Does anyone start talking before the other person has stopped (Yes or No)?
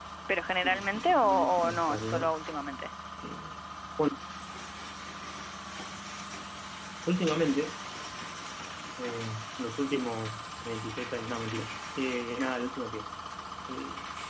Yes